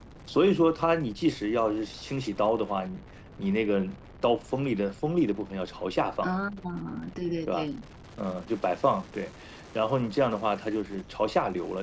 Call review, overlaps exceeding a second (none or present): none